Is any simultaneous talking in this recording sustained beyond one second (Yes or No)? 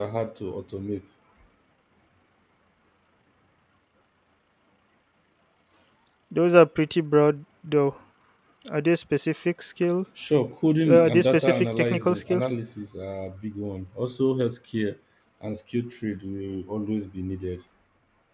Yes